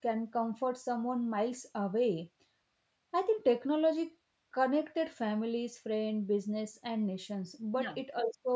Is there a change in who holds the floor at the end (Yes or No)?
No